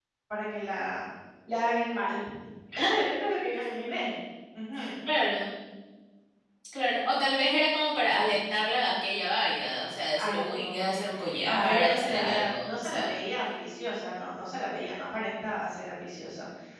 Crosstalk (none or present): present